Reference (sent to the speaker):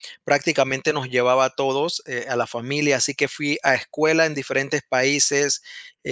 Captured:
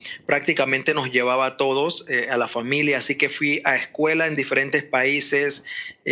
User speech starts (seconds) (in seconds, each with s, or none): none